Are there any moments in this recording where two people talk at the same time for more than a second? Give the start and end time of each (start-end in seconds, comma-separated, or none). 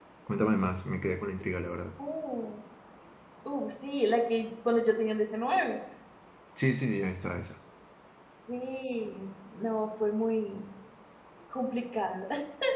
none